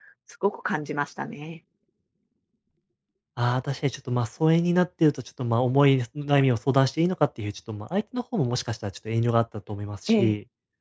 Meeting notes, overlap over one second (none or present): none